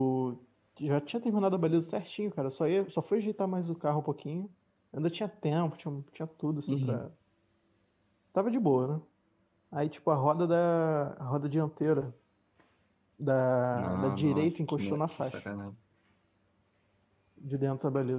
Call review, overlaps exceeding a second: present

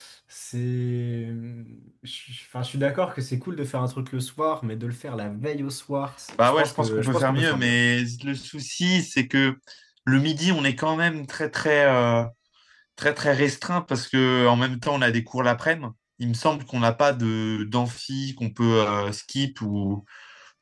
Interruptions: present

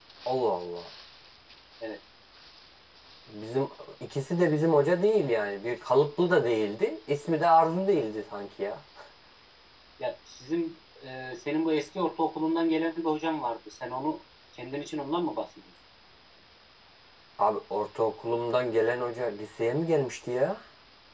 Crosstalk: none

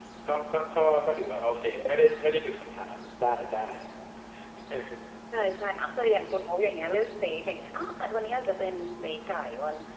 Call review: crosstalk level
none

